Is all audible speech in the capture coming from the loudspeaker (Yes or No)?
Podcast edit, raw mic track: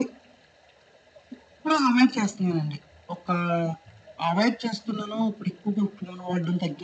Yes